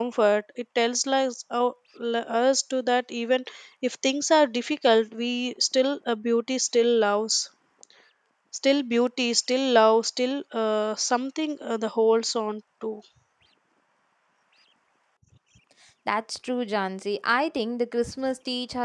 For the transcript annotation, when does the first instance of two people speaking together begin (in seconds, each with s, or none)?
none